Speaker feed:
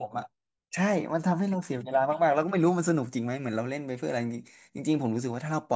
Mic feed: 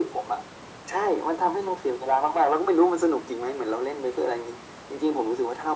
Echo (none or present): present